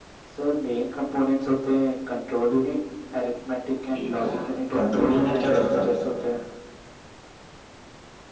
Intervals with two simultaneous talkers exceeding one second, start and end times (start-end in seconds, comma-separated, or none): 4.7-5.9